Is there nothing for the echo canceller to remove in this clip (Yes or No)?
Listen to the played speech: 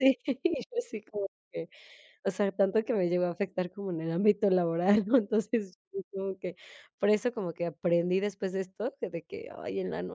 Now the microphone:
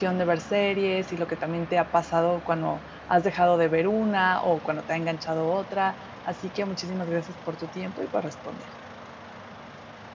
Yes